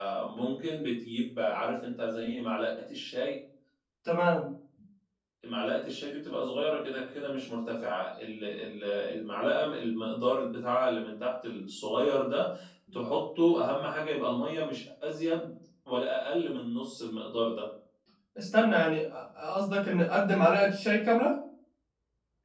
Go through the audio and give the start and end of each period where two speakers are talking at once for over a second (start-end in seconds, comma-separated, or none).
none